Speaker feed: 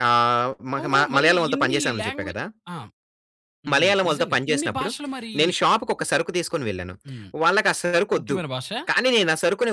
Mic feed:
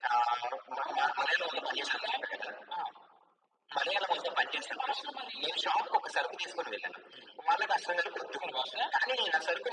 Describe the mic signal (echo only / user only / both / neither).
echo only